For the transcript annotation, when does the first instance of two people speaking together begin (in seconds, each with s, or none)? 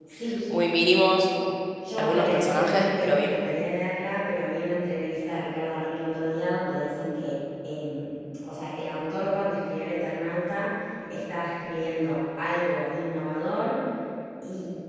1.8 s